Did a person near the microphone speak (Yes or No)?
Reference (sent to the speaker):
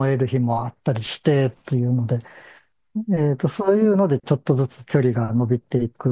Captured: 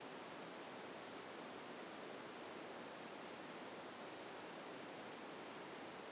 No